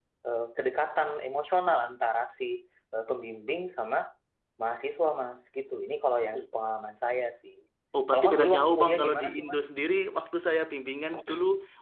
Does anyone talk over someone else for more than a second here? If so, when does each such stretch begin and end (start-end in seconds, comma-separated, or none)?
8.1-9.6